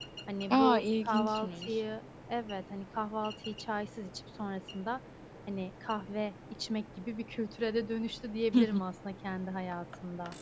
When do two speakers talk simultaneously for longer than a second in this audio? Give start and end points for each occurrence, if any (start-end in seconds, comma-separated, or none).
0.5-1.7